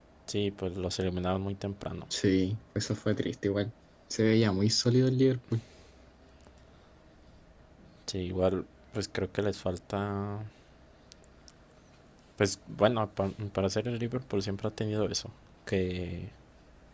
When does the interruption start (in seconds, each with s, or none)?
none